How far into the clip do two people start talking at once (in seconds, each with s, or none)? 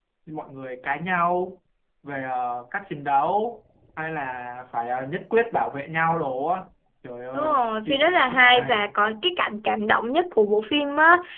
7.3 s